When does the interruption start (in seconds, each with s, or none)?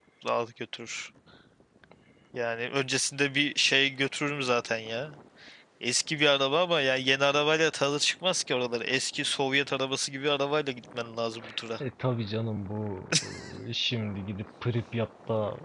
none